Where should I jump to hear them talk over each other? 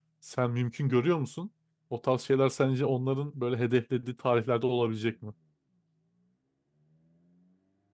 none

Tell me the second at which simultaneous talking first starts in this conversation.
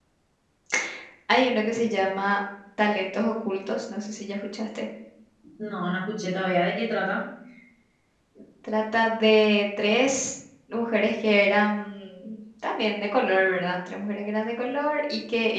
none

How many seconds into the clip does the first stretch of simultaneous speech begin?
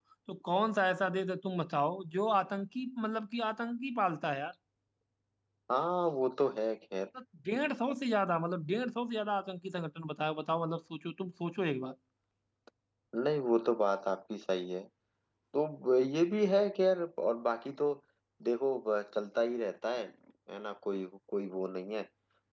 none

